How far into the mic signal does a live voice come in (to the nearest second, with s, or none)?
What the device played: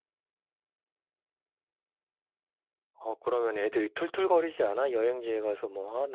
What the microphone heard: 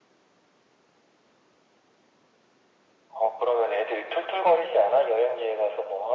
none